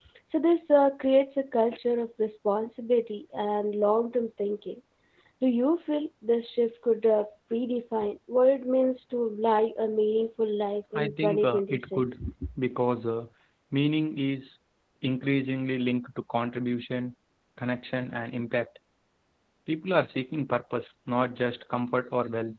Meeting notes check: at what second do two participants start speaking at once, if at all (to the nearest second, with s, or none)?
11 s